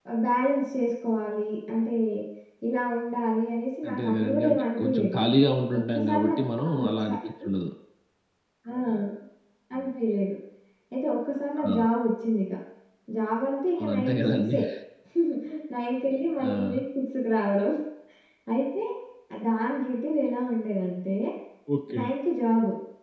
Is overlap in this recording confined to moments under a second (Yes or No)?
No